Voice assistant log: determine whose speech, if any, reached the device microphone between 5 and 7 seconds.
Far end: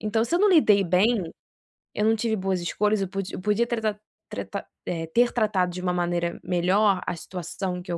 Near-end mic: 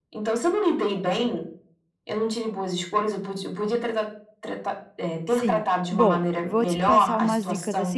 both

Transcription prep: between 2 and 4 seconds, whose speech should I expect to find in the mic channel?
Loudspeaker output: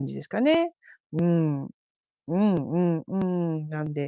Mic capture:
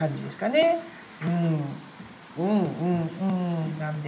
echo only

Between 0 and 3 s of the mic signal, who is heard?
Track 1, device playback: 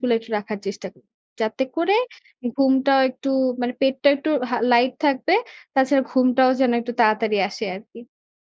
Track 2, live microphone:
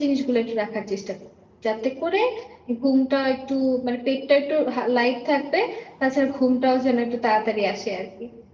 echo only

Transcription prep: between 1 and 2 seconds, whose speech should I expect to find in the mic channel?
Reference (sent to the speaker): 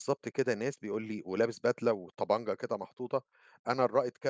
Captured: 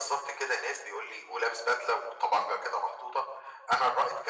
echo only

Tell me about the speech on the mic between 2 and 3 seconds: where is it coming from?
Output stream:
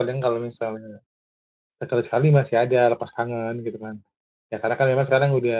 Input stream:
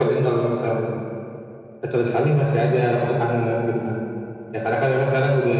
echo only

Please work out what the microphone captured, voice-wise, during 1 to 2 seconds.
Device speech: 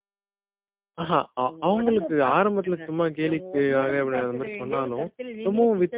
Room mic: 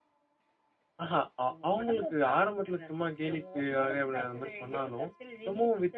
echo only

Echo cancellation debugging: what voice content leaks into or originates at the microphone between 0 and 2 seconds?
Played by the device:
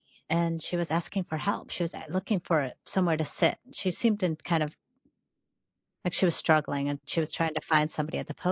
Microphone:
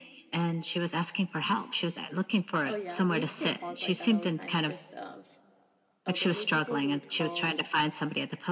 echo only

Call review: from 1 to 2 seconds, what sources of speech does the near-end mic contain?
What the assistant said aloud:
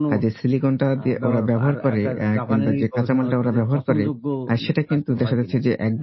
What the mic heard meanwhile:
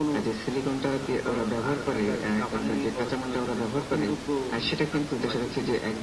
echo only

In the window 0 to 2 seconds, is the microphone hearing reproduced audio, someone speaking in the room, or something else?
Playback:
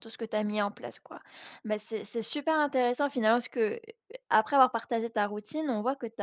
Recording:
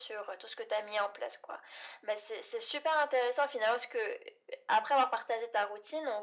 echo only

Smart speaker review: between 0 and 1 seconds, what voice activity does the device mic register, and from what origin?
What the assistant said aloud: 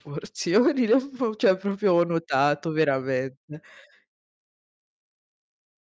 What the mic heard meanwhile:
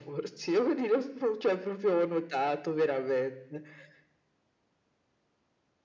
echo only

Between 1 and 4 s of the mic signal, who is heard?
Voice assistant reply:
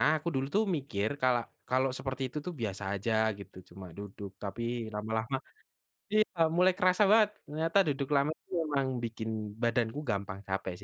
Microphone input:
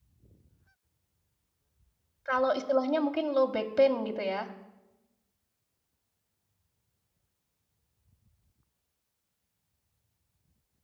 user only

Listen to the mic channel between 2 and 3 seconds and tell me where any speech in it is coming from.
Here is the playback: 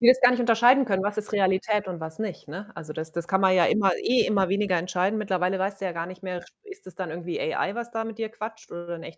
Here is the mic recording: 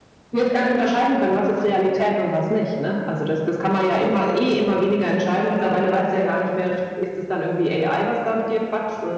echo only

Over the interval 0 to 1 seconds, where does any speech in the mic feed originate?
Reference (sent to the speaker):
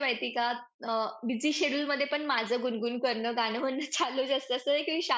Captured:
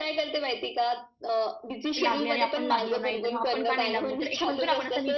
echo only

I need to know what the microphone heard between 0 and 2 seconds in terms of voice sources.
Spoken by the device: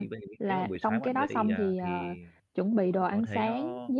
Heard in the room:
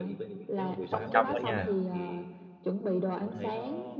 both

